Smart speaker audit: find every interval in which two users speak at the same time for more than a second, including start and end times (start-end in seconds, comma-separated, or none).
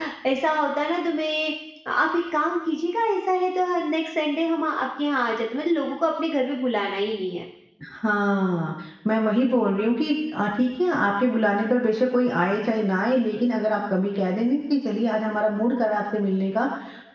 none